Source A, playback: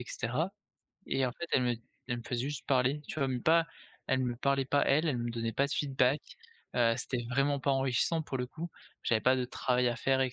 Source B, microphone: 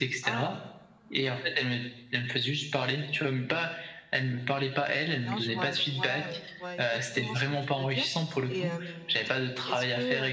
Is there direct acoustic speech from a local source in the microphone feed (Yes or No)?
Yes